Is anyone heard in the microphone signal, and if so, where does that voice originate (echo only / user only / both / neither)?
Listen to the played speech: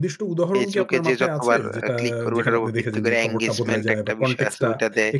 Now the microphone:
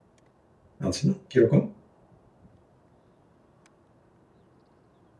user only